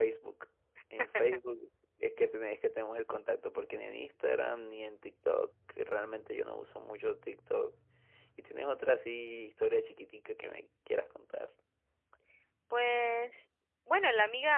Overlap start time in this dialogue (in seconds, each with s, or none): none